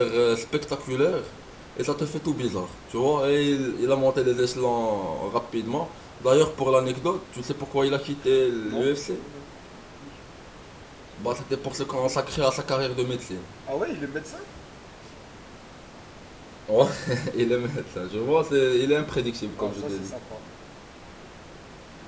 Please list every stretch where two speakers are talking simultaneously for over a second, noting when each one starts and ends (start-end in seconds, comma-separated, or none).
none